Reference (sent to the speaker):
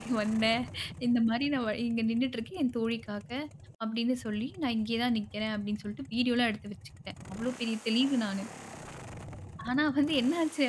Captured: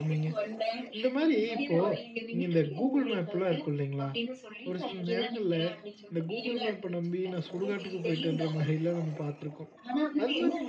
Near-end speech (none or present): present